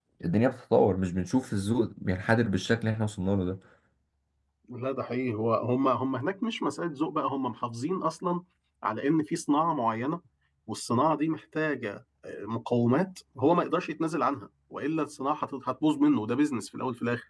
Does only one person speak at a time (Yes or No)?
Yes